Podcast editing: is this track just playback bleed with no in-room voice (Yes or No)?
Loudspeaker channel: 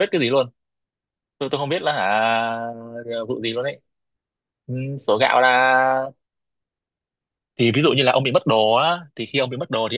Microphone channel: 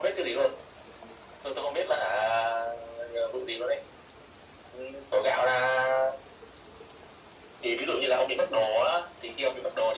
Yes